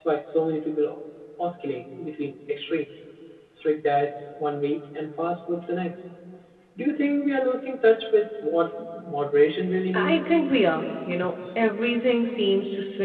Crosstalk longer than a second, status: none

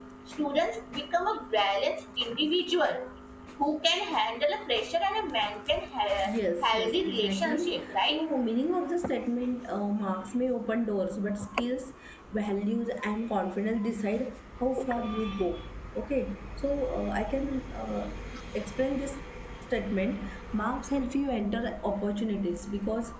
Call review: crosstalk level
present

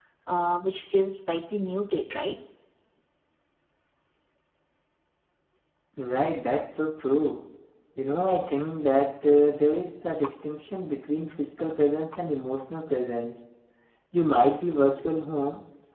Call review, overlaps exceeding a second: none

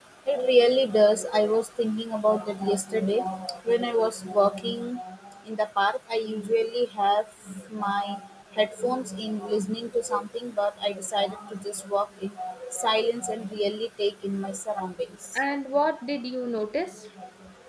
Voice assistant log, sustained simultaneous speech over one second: none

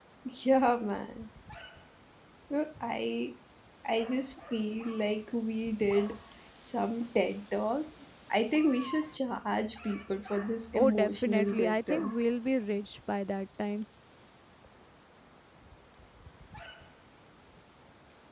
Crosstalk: present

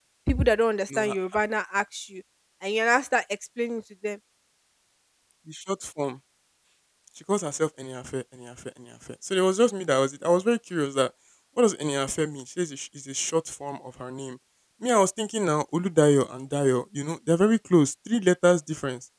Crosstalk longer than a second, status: none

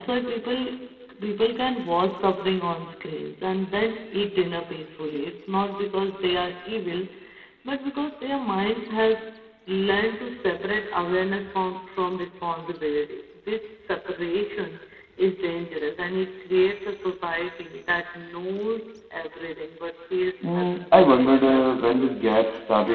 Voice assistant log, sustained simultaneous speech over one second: present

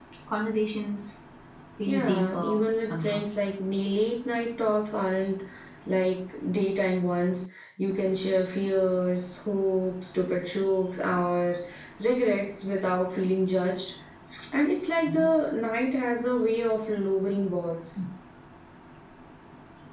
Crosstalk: present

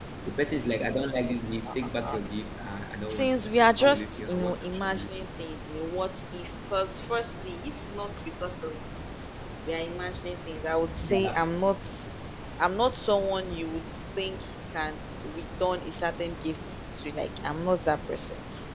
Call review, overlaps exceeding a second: present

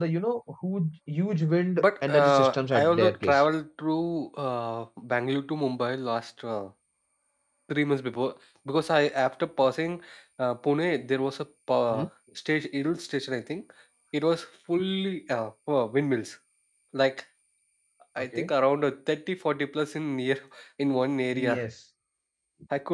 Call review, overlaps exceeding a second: present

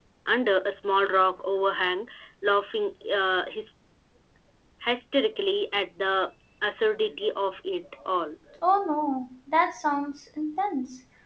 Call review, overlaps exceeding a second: none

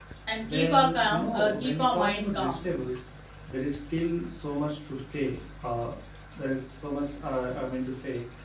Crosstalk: present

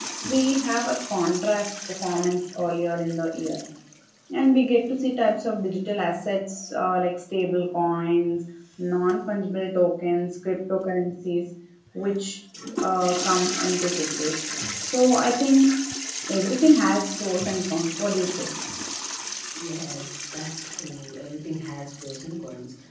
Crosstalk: none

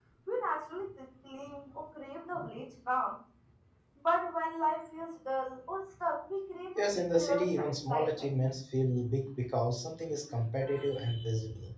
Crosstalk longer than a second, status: present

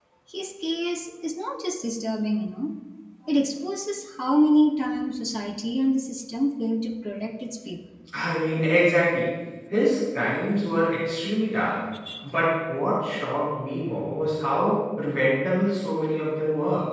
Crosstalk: none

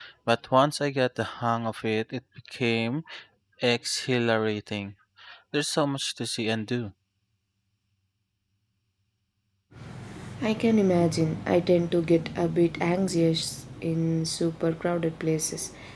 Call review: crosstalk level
none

